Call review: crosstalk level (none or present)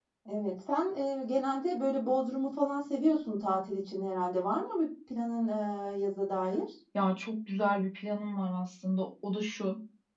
none